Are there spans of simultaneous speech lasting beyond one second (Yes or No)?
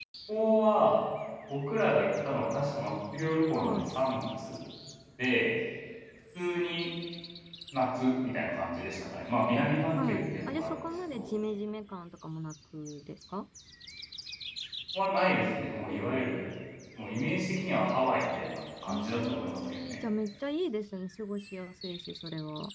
Yes